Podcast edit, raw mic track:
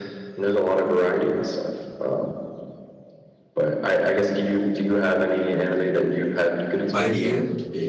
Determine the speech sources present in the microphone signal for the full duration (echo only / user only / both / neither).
both